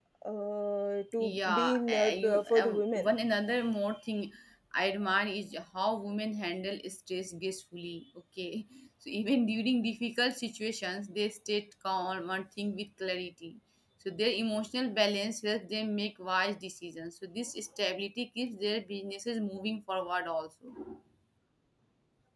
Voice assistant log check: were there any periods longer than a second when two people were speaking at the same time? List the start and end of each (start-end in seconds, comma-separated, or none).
1.2-3.1